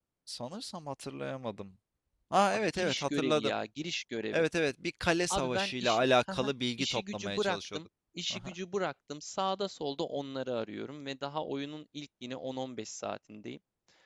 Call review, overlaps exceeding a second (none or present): present